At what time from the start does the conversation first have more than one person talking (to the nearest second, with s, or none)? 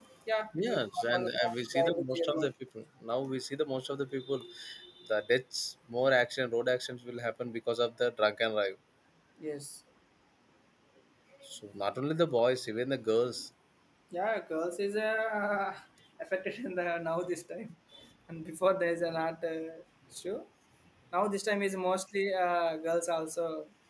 1 s